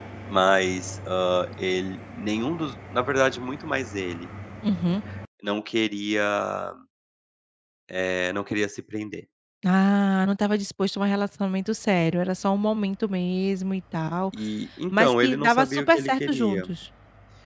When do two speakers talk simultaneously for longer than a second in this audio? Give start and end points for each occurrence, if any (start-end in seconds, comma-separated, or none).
14.9-16.7